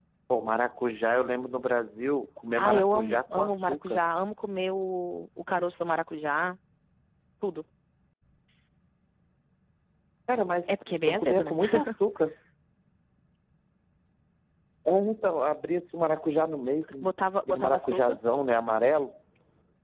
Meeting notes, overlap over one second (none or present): present